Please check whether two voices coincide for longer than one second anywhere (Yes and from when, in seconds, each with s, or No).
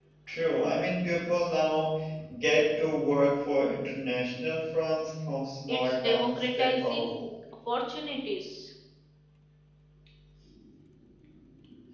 Yes, from 5.7 s